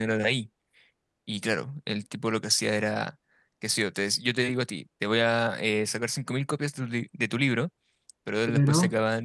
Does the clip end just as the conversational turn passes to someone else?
No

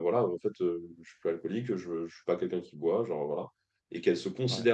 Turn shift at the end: No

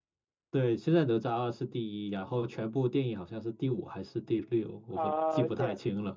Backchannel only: No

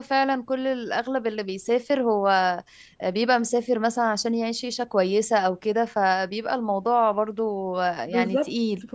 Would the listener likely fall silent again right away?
No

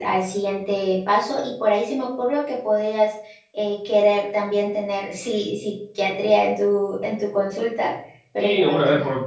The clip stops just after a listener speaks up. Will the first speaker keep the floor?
No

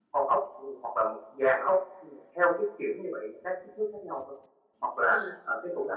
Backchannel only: Yes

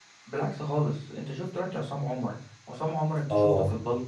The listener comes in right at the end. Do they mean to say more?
Yes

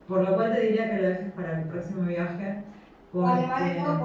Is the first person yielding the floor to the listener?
Yes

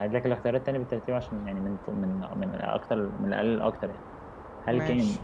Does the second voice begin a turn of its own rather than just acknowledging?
No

